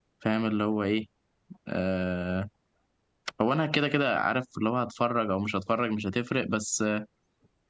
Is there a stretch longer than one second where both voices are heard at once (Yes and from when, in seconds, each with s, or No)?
No